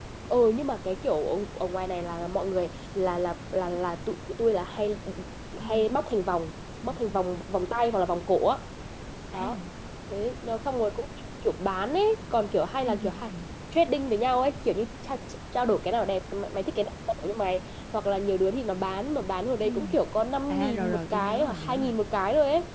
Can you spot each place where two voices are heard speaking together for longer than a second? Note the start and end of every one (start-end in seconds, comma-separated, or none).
20.5-22.0